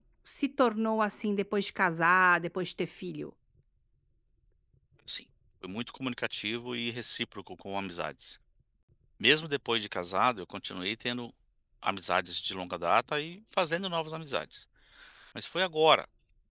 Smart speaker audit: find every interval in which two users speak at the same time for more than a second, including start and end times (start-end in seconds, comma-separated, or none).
none